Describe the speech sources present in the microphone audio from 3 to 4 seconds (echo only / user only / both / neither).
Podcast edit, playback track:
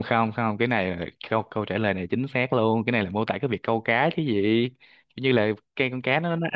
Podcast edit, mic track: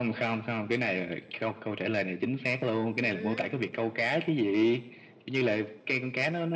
both